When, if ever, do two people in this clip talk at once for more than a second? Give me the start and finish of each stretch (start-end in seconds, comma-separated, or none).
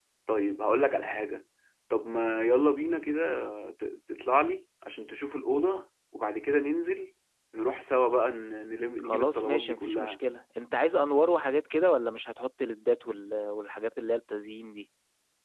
9.0-10.2